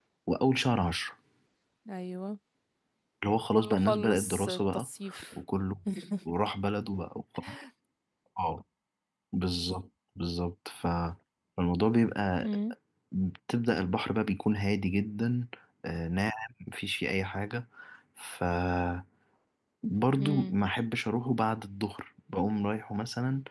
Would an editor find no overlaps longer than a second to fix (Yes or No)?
No